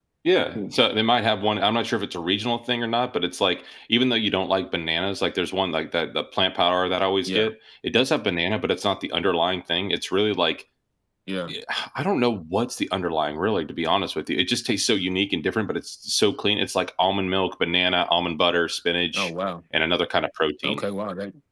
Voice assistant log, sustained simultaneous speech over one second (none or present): none